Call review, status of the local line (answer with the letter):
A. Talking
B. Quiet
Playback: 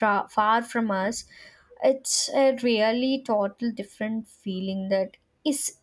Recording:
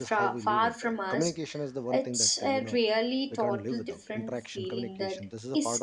A